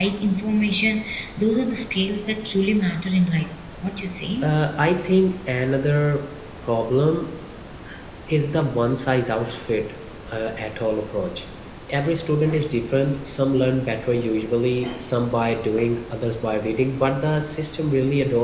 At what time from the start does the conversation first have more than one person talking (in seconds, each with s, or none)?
none